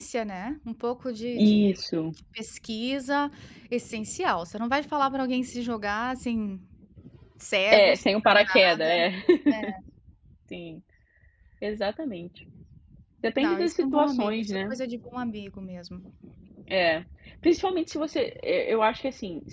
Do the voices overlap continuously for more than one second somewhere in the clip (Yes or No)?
Yes